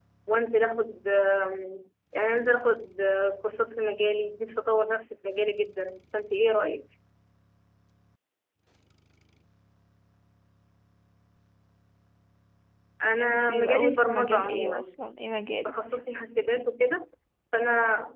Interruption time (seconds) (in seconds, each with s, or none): 13.2 s